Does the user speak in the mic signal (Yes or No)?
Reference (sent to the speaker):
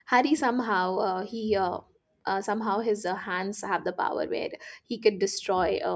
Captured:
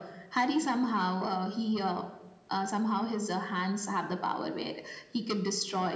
No